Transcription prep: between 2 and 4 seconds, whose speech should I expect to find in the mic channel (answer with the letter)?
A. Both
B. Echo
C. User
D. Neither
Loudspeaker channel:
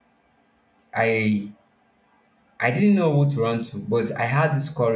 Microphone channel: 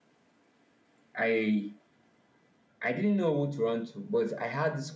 B